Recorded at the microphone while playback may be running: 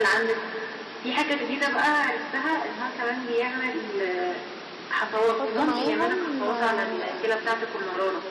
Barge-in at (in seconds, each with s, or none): 5.2 s